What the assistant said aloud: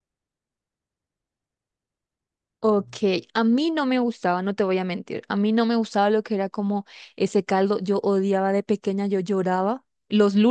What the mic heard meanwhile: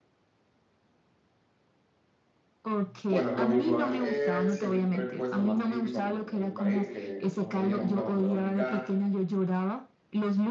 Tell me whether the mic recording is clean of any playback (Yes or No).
No